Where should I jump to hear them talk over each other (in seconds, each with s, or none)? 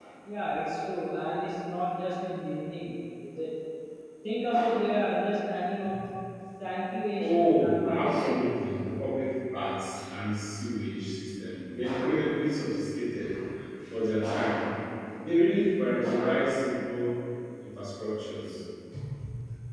7.2 s